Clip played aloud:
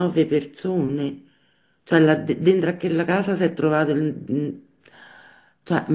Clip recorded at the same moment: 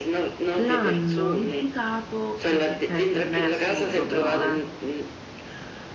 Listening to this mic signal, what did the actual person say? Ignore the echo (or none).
L'hanno imputato, perché per, per me è assurdo però, eh,